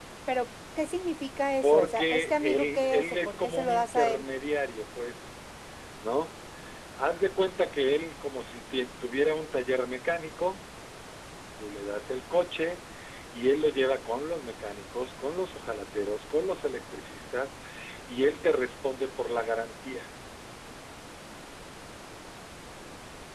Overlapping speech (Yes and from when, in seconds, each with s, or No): Yes, from 1.6 s